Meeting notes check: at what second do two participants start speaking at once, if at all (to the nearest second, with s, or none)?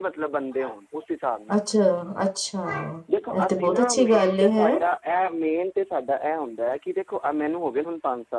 3 s